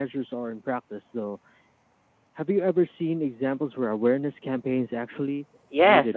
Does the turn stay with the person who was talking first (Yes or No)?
No